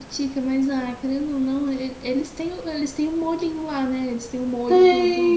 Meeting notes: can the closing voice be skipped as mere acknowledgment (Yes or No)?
Yes